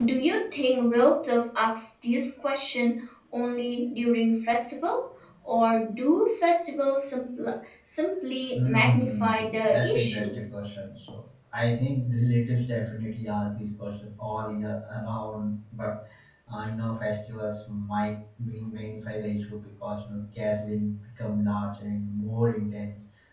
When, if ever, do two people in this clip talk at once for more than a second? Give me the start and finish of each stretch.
8.5-10.4

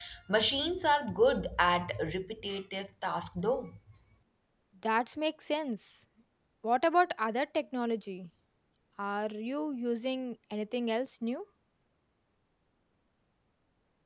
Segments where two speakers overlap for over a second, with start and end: none

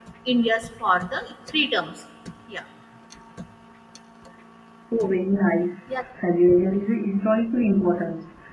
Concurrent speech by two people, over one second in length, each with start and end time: none

